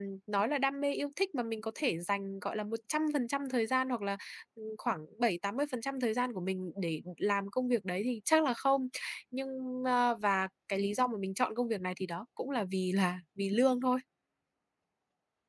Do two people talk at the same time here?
No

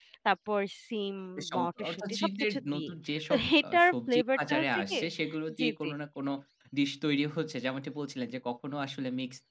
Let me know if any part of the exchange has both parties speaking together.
Yes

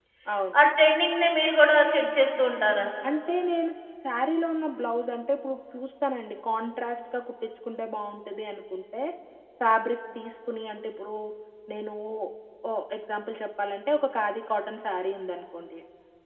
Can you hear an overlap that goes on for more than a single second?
No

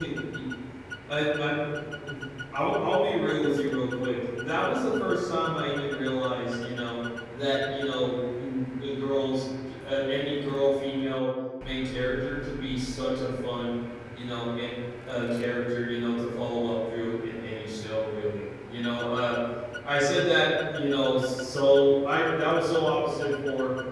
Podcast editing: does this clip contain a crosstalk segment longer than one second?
No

